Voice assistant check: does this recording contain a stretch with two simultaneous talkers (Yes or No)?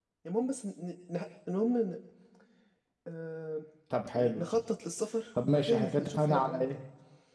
Yes